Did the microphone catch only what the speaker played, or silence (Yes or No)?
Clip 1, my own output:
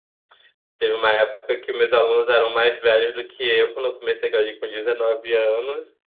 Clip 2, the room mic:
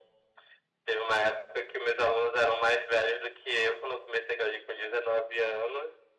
Yes